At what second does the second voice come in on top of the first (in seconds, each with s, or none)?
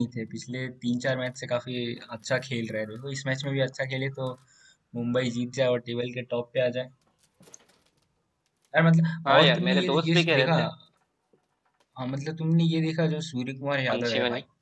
9.2 s